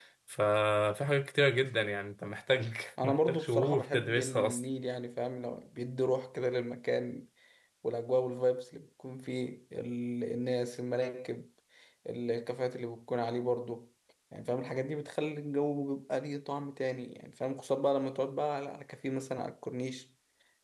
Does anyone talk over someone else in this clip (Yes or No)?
Yes